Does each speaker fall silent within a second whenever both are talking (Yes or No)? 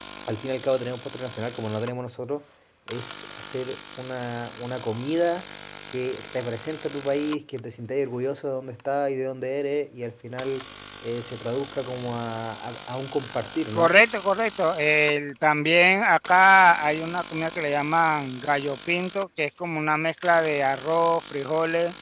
Yes